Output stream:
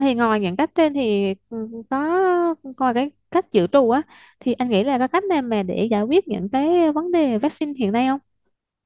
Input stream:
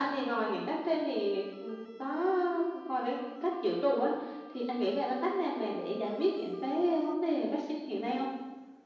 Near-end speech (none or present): none